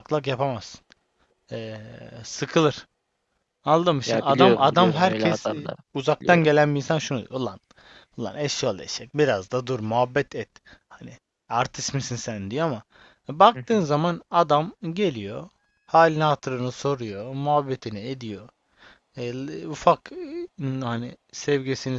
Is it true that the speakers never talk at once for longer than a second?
No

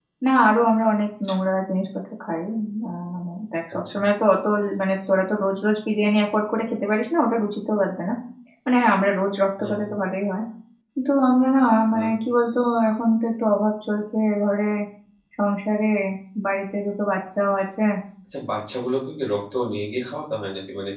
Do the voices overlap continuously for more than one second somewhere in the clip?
No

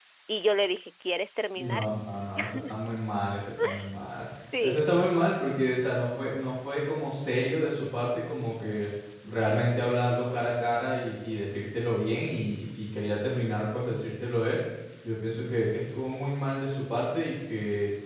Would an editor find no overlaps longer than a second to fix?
Yes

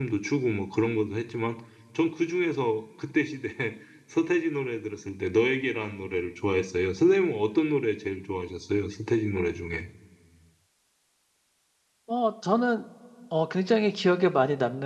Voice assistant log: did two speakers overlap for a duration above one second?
No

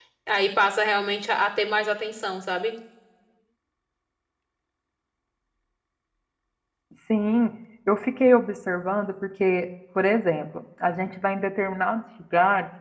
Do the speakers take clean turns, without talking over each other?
Yes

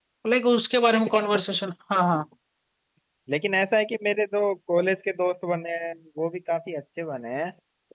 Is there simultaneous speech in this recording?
No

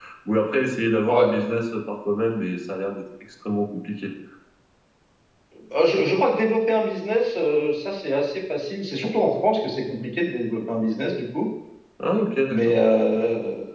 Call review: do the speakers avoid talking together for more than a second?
Yes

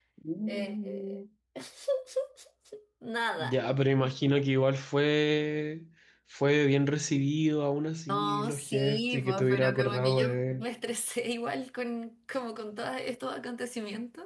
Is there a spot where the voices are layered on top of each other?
Yes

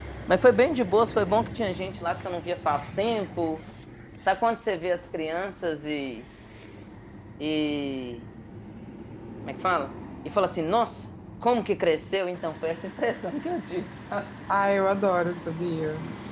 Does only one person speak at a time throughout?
Yes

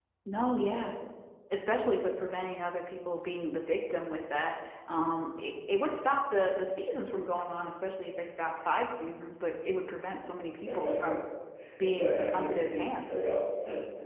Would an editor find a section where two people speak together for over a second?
Yes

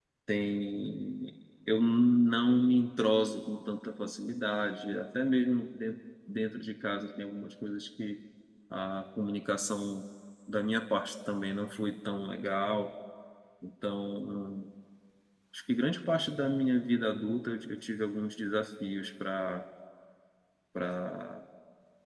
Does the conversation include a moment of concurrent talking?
No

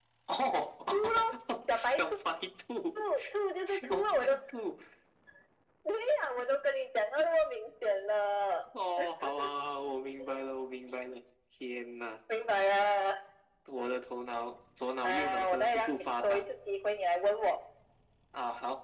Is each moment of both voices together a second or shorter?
No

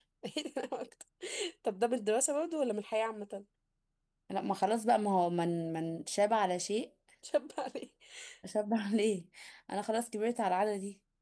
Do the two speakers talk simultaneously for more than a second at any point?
No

